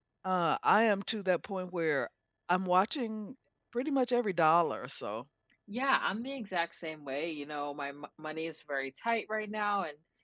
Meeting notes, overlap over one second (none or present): none